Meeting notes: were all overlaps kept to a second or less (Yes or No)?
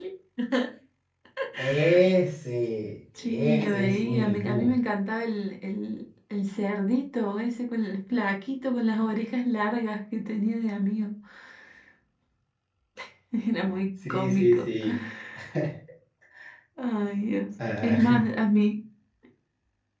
No